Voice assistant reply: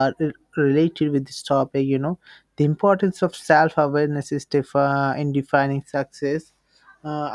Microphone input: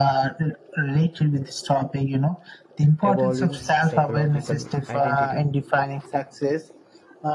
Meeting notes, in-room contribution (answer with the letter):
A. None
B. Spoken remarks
B